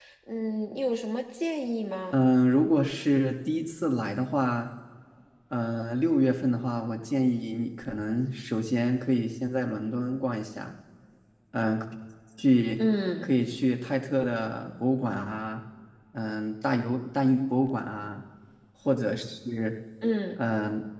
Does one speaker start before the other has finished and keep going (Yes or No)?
No